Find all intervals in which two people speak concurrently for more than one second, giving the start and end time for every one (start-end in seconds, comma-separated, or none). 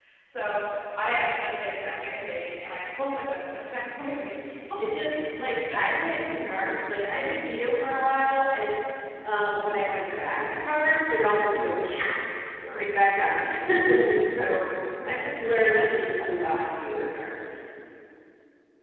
none